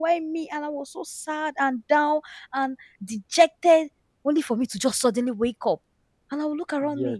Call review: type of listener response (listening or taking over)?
listening